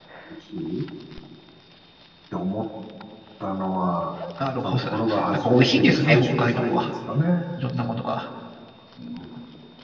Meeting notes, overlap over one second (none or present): present